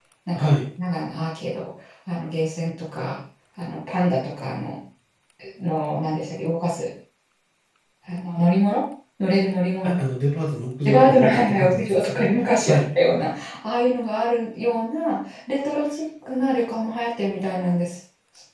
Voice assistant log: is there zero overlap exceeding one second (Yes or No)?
No